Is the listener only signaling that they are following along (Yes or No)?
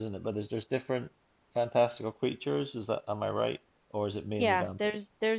No